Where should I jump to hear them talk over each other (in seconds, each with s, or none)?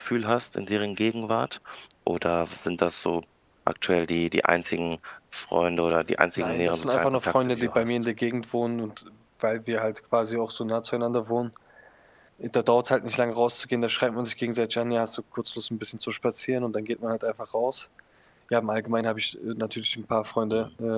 6.4 s